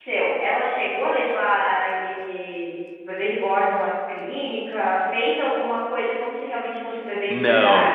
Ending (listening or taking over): taking over